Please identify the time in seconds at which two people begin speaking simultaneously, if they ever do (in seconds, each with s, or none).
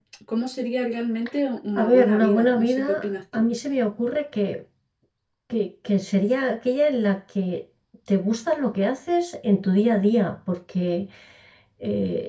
1.8 s